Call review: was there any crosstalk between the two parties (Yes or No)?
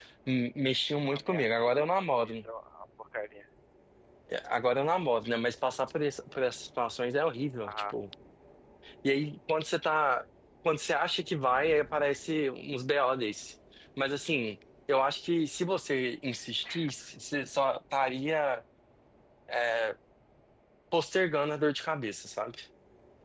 Yes